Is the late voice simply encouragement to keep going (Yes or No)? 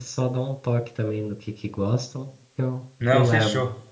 No